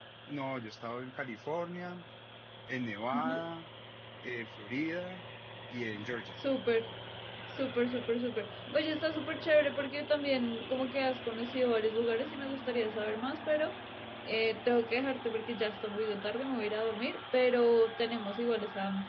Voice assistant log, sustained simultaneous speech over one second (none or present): none